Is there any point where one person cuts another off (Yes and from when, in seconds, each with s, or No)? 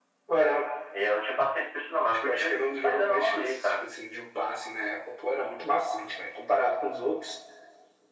Yes, from 2.2 s